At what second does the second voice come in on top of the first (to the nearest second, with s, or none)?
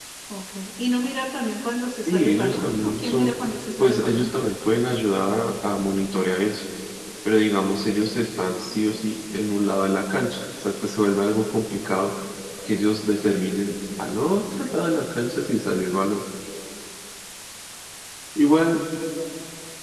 2 s